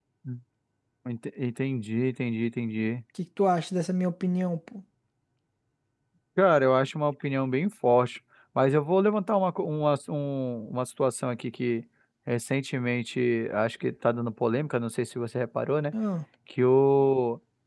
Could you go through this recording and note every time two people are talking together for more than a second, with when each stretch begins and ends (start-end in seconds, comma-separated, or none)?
none